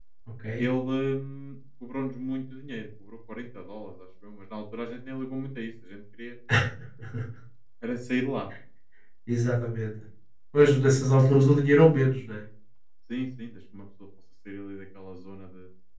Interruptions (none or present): none